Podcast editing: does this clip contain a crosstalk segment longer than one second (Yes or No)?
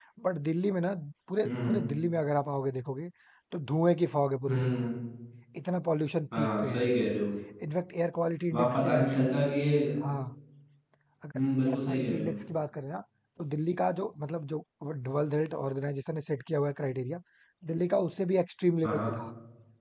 Yes